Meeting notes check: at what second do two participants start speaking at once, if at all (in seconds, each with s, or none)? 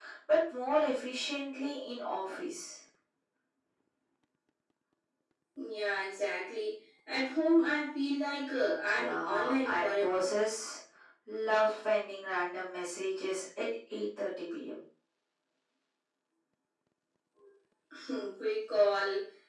8.9 s